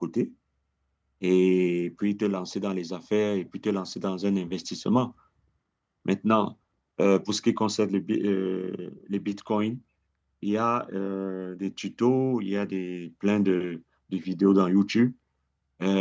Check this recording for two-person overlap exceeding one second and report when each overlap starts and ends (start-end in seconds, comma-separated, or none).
none